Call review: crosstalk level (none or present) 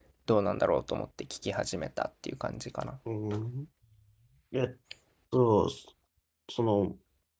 none